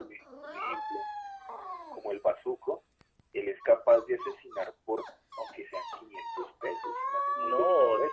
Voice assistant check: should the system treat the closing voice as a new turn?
Yes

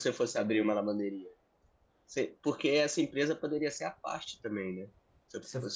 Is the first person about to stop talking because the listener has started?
No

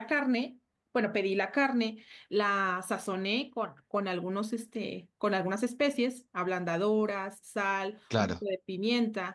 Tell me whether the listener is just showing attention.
Yes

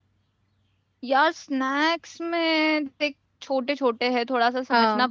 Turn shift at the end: No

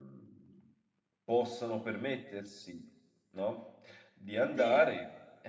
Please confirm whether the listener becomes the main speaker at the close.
No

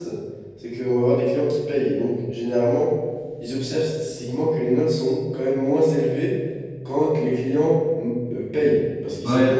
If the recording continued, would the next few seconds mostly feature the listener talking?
Yes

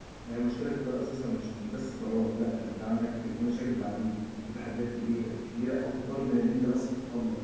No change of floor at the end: Yes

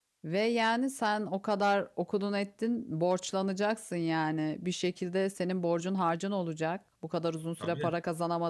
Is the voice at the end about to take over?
No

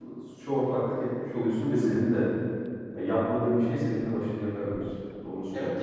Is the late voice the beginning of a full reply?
Yes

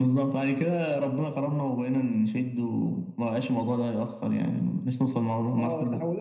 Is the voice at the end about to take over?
Yes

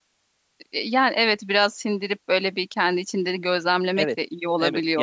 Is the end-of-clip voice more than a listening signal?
Yes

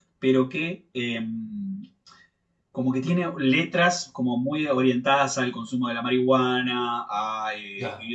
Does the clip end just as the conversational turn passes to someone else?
No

